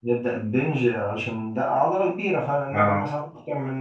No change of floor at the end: Yes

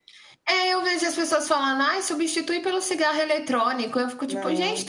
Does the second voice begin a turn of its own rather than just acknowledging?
No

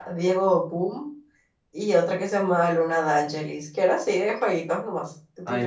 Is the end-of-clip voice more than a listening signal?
No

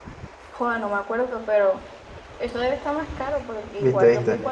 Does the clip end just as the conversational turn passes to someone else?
Yes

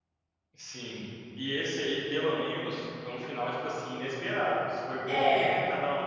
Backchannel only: Yes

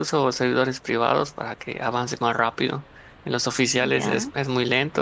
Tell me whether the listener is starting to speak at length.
No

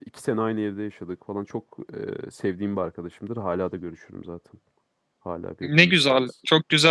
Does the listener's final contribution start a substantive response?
Yes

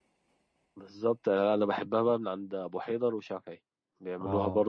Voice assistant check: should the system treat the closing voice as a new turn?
No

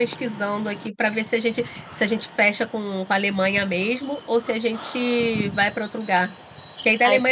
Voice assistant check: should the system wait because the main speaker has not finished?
Yes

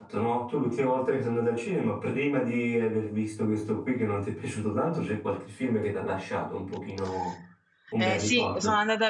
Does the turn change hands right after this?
Yes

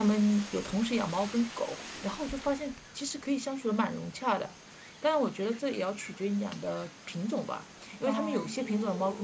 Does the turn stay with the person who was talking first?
Yes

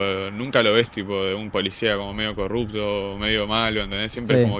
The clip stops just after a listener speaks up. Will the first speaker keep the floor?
No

